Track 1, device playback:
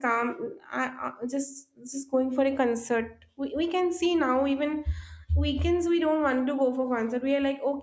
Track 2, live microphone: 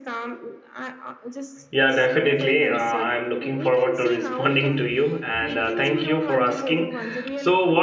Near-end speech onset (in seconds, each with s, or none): 1.7 s